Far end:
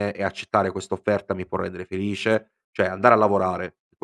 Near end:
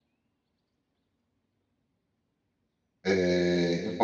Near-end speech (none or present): present